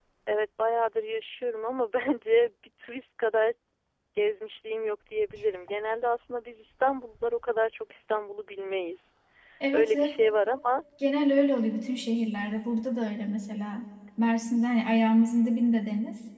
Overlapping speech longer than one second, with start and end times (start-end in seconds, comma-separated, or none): none